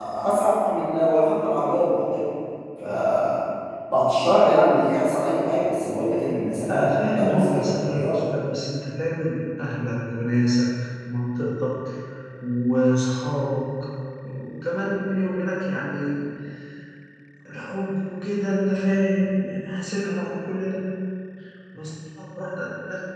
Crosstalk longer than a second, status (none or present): present